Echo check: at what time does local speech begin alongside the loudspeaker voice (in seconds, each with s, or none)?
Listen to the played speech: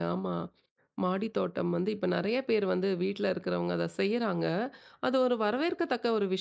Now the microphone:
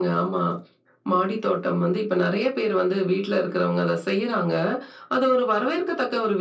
none